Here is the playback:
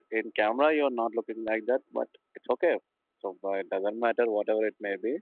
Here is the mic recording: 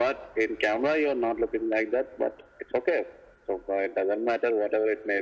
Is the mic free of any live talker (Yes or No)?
Yes